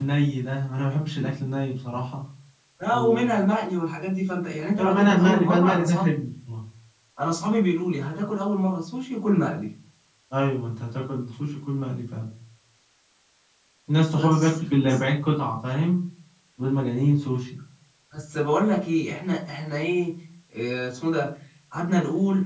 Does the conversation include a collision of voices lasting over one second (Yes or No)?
Yes